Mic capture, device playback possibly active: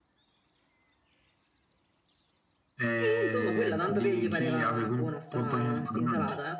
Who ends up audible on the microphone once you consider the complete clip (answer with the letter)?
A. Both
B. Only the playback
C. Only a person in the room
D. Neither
A